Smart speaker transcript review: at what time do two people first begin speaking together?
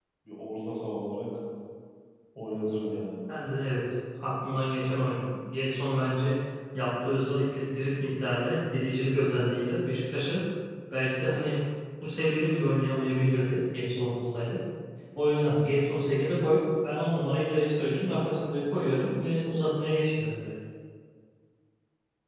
none

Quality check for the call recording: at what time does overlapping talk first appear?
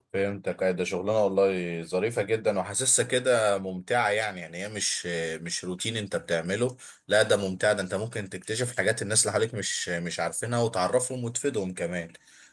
none

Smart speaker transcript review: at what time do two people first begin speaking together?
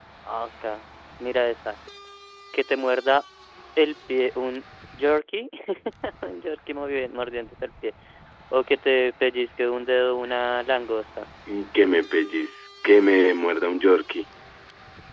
none

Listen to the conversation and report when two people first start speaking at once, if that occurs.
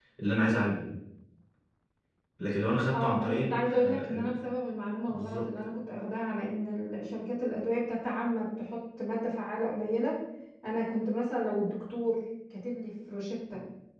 2.9 s

